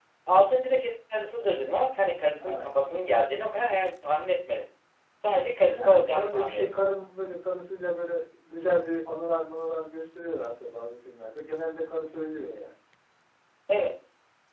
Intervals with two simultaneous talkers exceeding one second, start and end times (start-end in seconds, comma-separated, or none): 5.7-7.0